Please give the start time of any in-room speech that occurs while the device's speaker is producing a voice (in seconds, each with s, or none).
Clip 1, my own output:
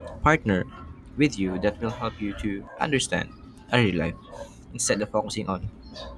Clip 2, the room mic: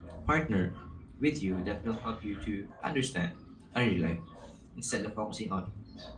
none